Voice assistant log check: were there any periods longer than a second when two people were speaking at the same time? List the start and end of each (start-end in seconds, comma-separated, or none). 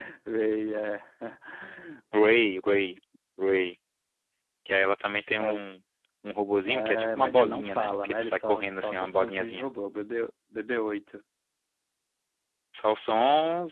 6.7-9.7